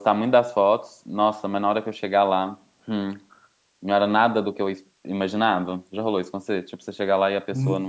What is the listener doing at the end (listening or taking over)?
taking over